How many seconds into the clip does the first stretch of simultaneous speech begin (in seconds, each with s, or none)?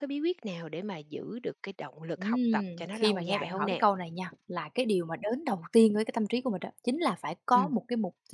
2.2 s